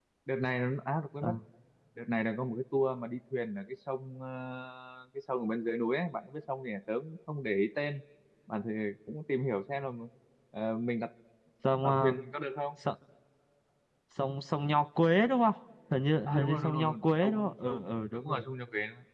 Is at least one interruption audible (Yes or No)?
Yes